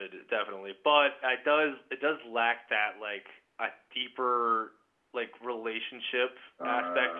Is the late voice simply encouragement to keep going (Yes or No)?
Yes